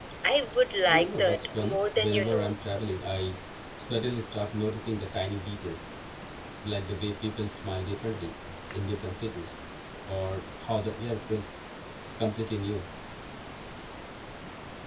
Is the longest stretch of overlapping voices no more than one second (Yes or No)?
No